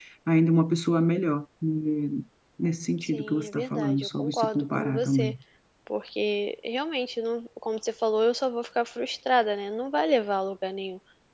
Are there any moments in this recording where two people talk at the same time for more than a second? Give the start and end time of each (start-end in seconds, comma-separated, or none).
3.0-5.3